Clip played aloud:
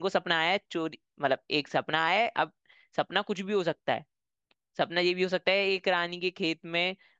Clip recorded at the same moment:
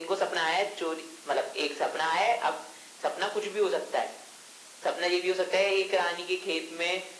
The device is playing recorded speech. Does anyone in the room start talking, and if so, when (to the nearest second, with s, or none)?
none